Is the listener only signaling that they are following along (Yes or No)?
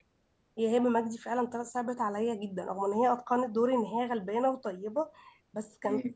Yes